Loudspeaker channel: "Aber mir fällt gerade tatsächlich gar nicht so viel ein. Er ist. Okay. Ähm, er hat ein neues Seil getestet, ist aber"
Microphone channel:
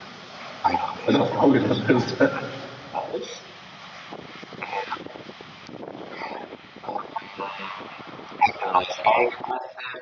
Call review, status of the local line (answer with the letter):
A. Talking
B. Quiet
A